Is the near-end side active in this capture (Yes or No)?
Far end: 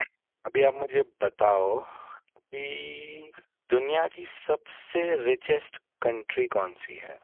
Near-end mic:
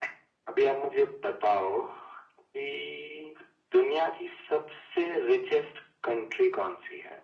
No